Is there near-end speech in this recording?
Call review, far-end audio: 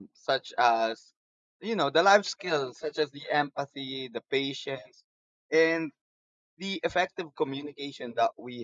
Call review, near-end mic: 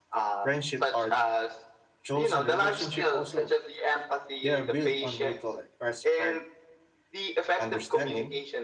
Yes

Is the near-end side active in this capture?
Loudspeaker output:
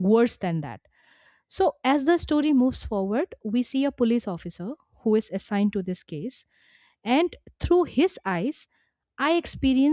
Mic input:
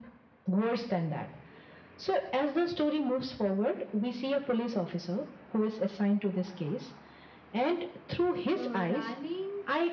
Yes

